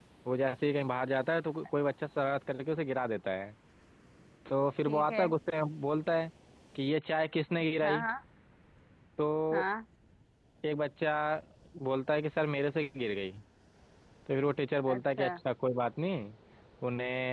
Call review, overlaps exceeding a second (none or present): none